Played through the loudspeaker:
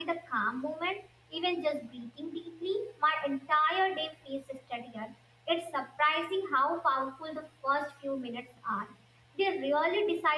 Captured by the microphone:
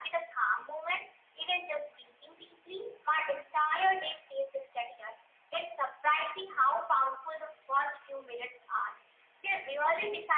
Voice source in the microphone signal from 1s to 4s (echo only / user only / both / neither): echo only